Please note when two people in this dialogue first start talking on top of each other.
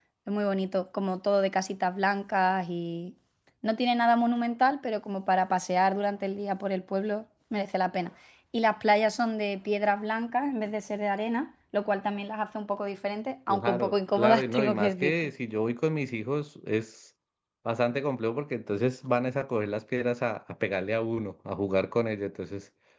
13.5 s

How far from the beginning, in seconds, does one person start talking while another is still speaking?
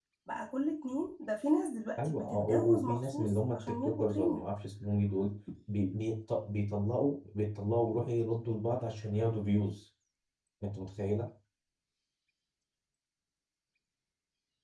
2.0 s

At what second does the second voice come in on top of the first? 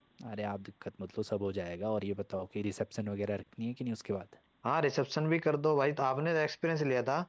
none

